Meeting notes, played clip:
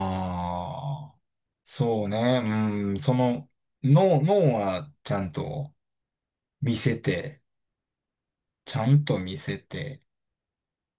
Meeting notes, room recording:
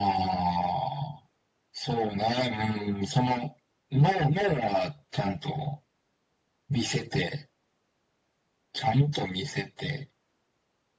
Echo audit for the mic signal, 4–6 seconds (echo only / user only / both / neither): echo only